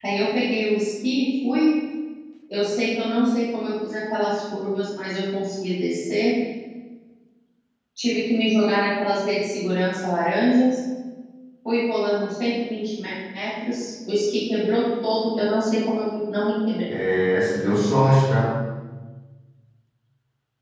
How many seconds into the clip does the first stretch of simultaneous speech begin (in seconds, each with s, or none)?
none